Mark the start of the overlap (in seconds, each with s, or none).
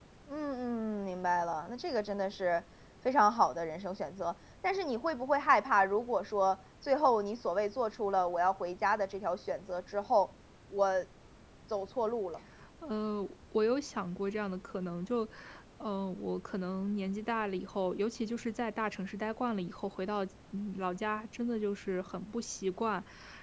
none